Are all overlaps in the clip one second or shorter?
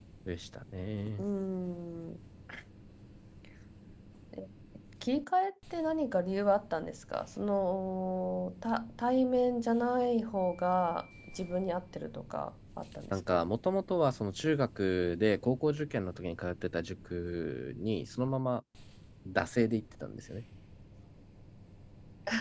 Yes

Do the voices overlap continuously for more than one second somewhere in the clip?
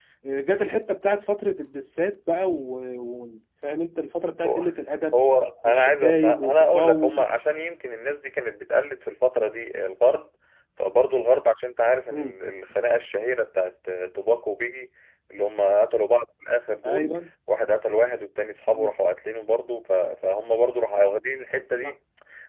Yes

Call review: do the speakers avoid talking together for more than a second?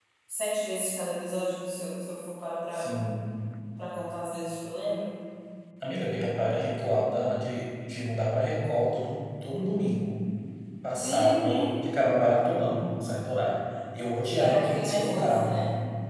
No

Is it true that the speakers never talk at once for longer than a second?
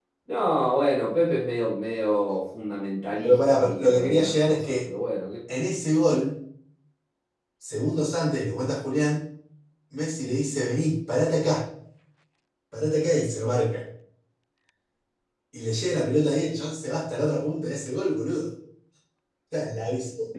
No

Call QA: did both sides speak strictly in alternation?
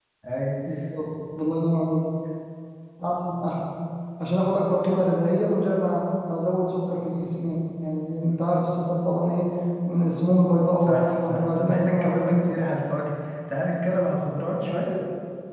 No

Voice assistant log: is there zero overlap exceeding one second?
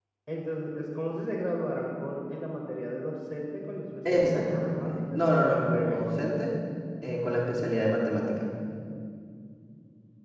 No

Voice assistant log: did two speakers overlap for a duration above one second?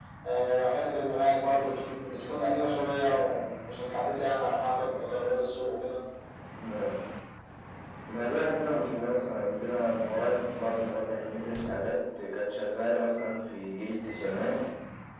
No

